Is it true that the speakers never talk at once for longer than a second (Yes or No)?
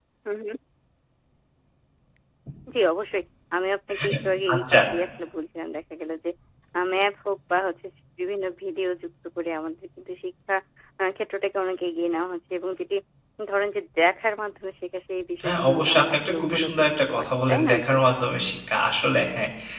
No